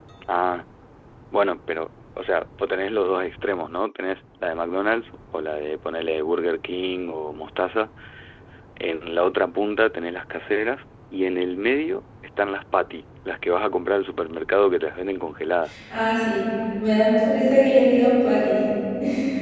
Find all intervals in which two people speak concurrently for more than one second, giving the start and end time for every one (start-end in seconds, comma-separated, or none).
none